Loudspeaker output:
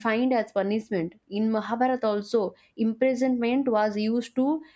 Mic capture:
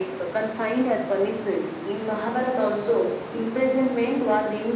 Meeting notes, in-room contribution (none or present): none